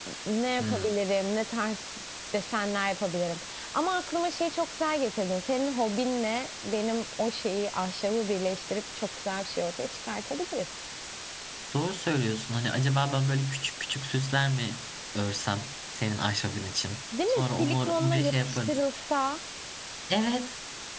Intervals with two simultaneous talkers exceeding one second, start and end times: 17.3-18.8

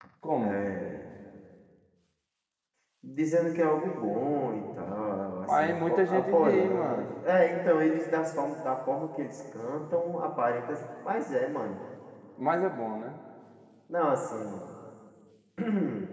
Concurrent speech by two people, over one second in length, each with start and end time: 5.4-7.2

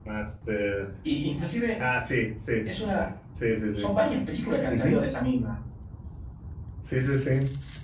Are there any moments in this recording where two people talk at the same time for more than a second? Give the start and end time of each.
none

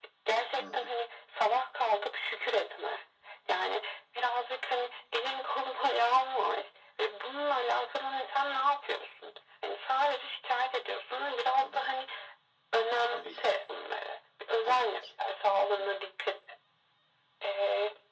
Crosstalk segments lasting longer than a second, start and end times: none

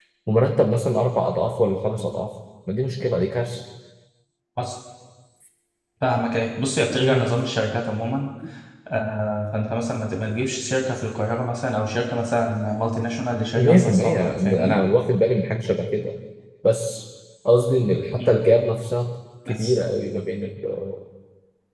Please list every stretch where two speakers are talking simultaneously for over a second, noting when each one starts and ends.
13.6-14.8

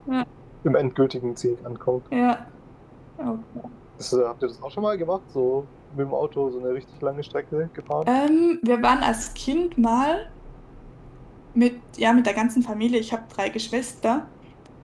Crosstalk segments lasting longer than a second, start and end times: none

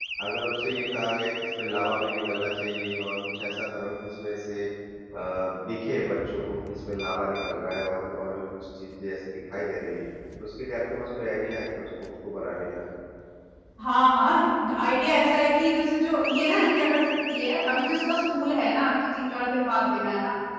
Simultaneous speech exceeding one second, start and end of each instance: none

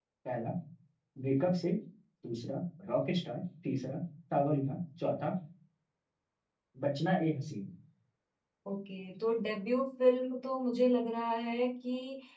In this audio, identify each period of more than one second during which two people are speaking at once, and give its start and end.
none

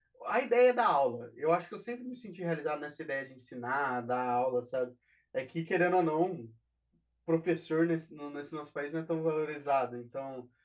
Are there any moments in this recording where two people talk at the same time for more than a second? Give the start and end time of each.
none

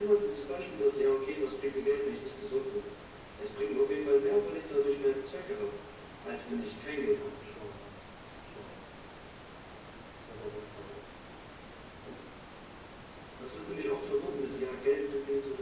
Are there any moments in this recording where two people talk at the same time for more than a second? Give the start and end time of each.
none

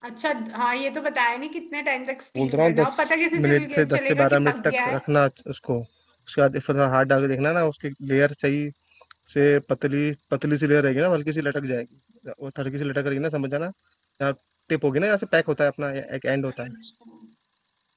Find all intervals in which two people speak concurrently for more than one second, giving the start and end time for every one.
2.4-5.0

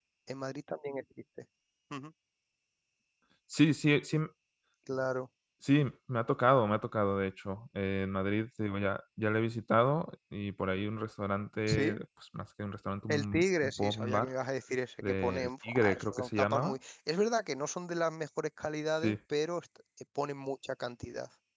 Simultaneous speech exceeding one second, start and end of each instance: 13.1-14.3, 15.0-16.8

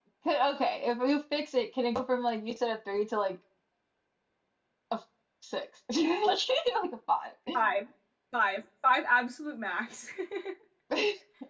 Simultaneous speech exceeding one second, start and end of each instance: none

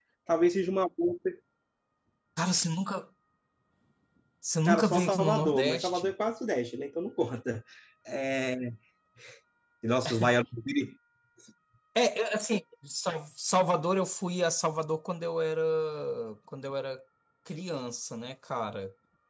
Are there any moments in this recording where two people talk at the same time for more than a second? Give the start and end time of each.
4.7-6.1

